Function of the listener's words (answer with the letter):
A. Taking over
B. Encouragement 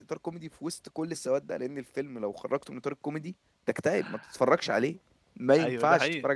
A